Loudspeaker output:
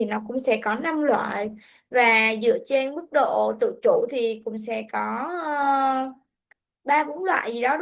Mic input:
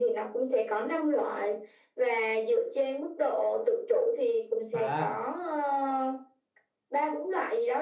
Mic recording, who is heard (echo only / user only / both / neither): both